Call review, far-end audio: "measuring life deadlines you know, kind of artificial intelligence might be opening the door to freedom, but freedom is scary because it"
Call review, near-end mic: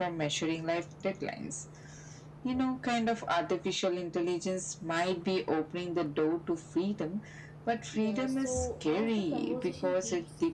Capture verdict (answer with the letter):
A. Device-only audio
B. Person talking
B